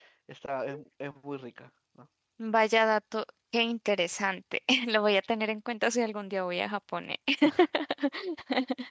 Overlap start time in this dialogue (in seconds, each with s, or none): none